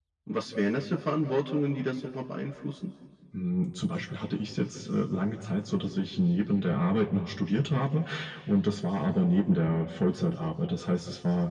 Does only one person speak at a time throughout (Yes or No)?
Yes